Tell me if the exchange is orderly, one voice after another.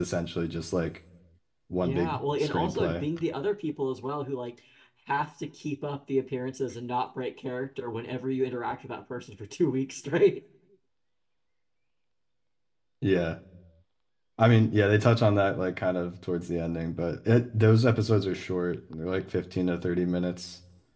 No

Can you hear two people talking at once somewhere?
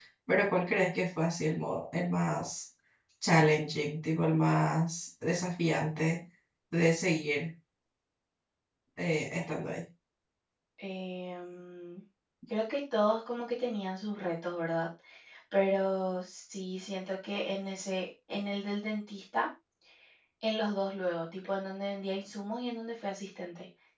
No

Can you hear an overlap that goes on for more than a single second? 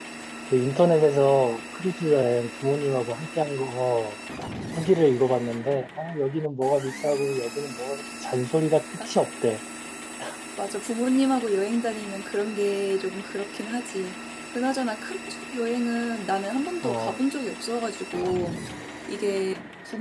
No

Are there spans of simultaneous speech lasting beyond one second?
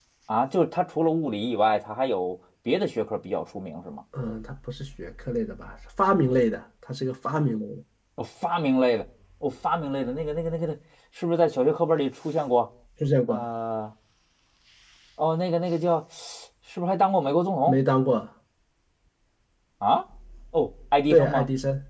No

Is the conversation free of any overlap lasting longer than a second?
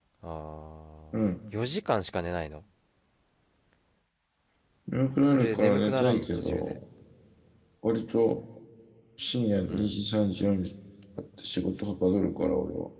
No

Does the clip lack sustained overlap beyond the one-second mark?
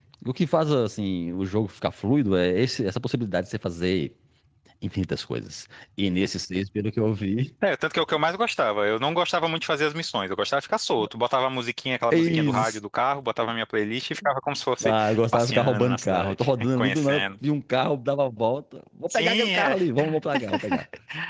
No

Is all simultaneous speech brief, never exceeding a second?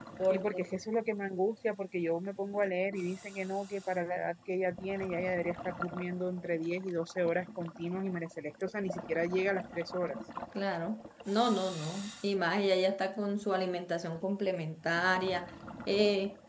Yes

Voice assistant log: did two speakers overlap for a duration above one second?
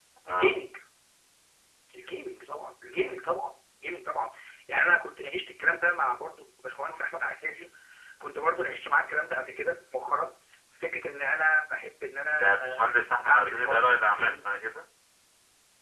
Yes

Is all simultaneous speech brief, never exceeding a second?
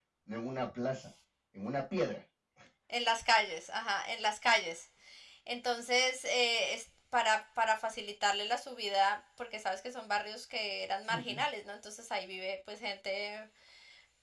Yes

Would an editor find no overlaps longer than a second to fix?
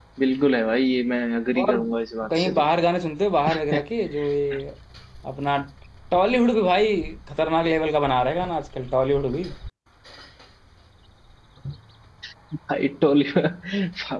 Yes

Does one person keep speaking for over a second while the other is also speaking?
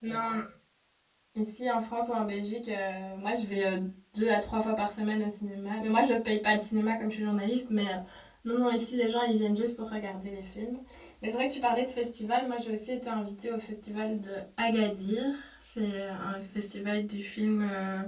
No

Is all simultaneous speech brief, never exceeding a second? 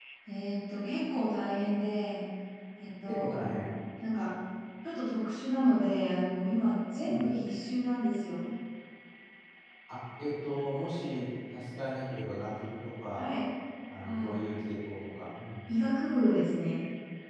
Yes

